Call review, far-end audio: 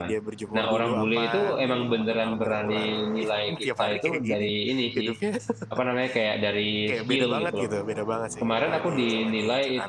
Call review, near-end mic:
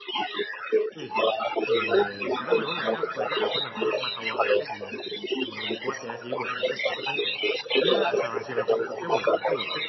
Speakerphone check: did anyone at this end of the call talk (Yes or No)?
Yes